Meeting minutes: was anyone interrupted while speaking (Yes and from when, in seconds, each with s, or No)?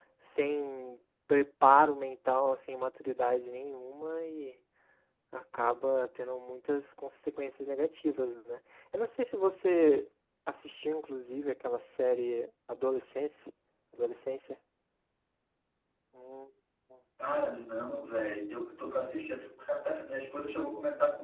No